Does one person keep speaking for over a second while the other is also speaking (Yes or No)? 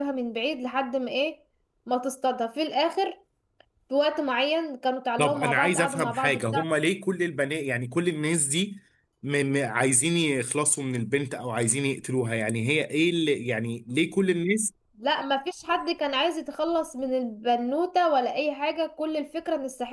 Yes